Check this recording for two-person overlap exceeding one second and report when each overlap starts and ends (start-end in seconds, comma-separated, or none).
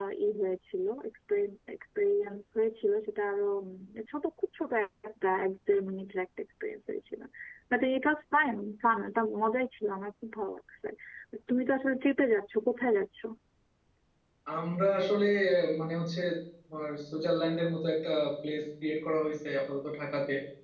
none